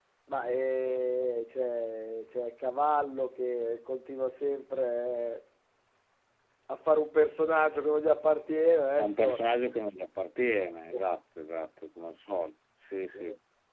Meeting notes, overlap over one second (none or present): none